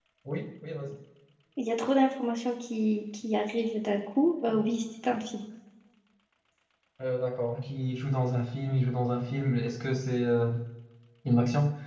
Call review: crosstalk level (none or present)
none